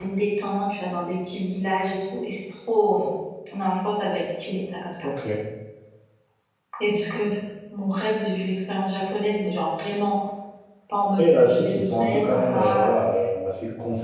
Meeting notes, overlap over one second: present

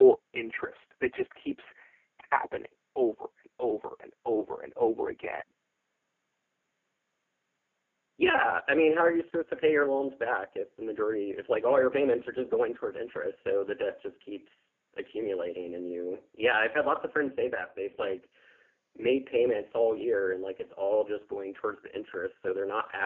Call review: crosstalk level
none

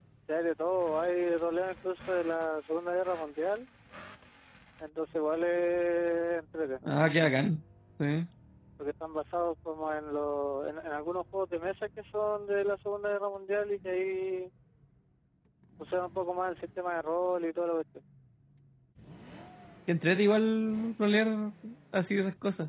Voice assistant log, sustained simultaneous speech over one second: none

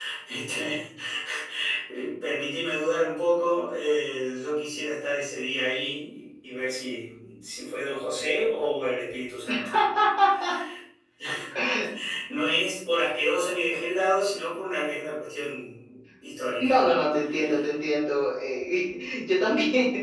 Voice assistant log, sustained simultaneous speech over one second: none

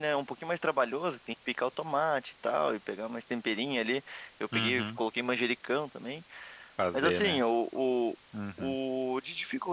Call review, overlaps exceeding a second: none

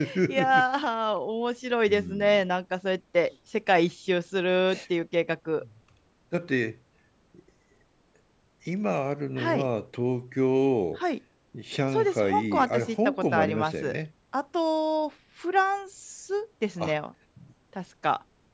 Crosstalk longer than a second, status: present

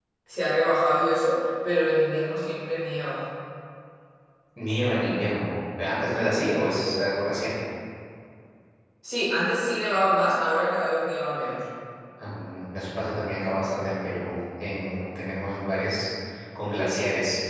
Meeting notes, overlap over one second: none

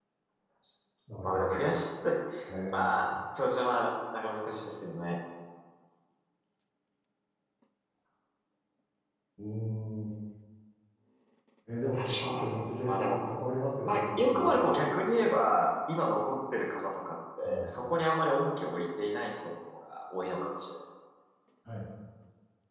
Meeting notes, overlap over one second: present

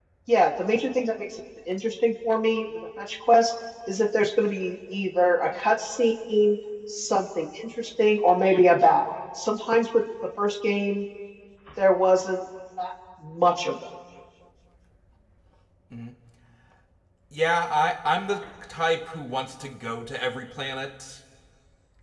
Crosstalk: none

